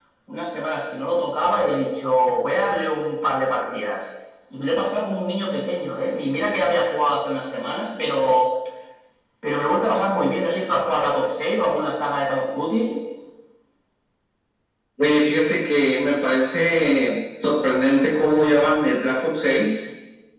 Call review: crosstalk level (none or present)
none